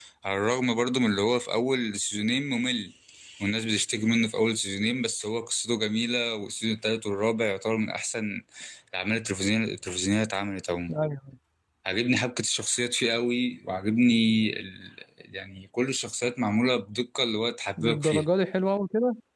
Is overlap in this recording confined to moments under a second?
Yes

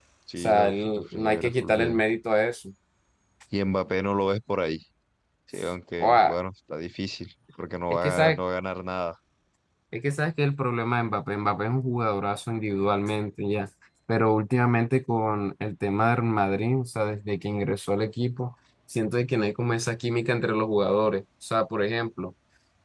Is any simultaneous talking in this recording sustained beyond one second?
Yes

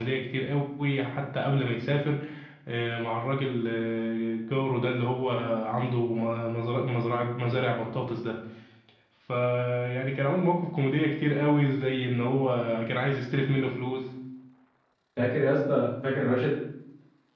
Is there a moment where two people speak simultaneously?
No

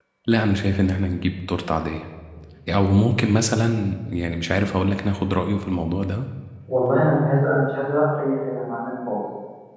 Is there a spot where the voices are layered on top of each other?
No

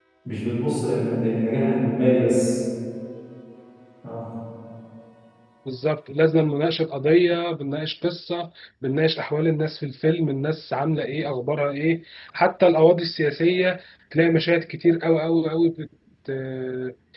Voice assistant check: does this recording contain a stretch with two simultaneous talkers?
No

